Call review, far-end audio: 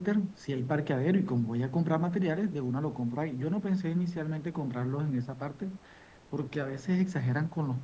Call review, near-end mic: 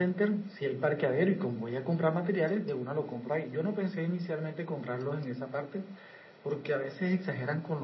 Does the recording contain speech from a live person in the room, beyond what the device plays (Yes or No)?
No